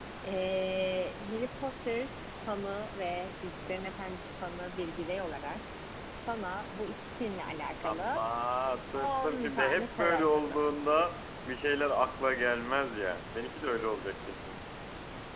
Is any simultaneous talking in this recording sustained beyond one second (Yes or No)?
Yes